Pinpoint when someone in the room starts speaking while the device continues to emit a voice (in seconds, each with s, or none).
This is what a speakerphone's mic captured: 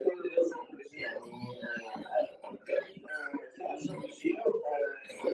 none